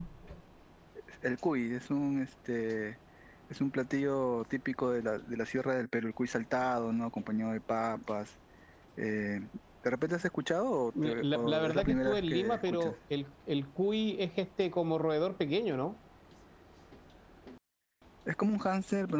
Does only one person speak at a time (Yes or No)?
No